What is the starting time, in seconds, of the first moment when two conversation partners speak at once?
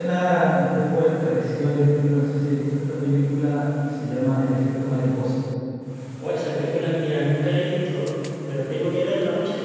none

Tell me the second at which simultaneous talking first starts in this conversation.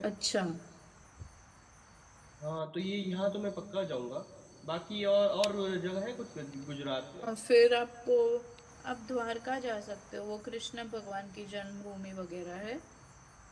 none

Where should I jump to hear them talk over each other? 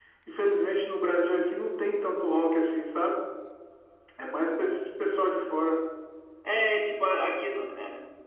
none

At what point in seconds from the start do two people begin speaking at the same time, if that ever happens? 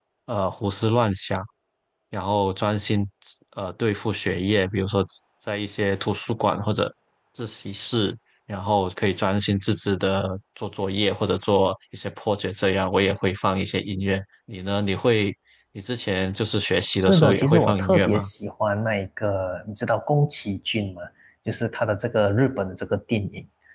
17.0 s

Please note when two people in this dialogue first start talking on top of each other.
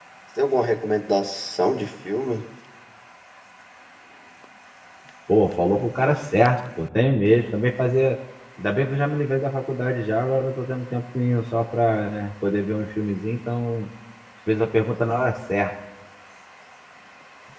none

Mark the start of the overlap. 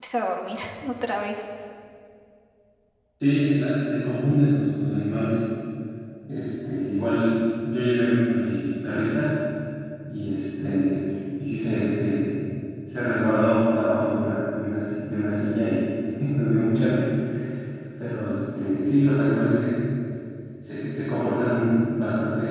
none

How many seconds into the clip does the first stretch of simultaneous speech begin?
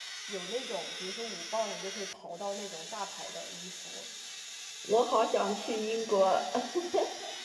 none

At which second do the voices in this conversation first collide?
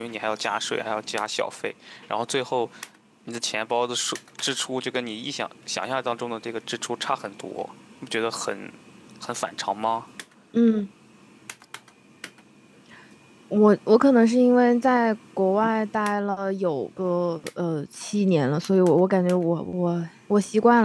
none

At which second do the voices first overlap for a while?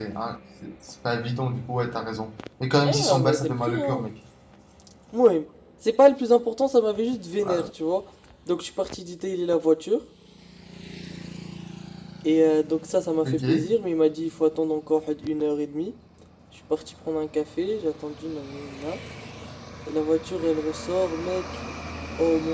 2.8 s

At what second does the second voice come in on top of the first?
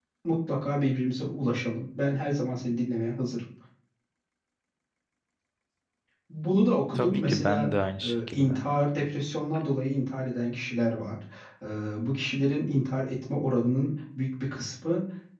6.9 s

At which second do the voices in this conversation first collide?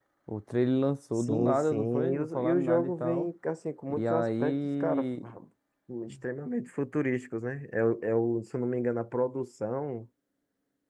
1.2 s

